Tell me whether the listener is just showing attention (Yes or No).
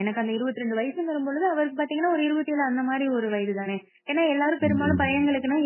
Yes